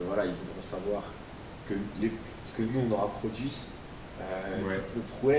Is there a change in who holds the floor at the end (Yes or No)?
No